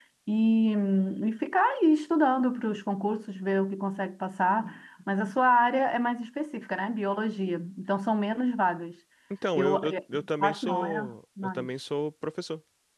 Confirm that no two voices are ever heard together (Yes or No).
No